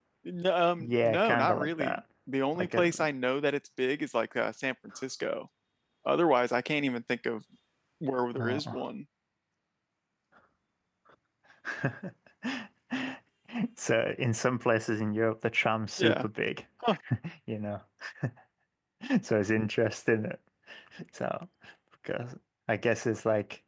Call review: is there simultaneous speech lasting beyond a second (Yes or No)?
Yes